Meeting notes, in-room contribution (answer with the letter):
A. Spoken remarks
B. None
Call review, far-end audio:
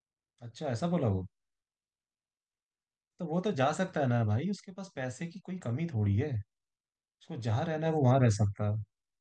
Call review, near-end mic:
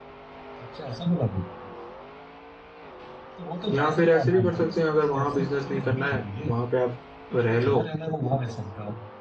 A